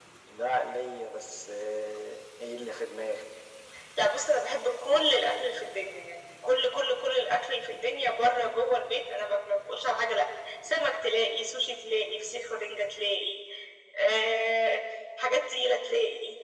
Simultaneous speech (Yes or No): No